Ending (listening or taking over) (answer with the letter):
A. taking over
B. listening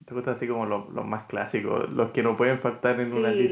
A